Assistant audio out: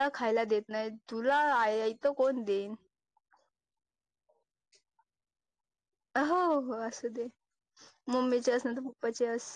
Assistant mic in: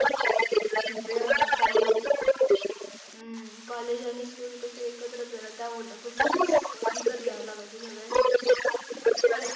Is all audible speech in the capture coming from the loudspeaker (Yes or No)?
No